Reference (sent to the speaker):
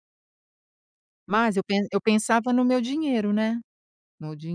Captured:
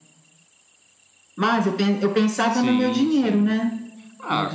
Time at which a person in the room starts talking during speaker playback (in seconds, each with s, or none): 2.5 s